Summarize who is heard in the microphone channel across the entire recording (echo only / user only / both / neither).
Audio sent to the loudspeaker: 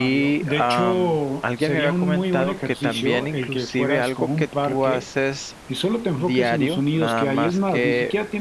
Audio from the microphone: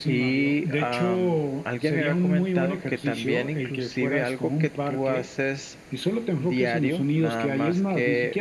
echo only